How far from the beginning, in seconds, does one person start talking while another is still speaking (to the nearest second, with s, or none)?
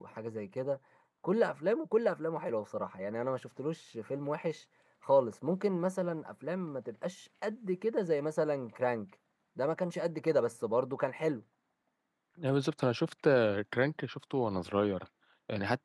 none